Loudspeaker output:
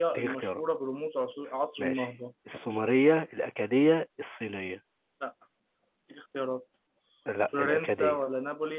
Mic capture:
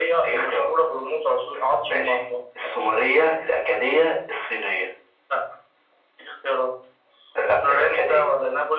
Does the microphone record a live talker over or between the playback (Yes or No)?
No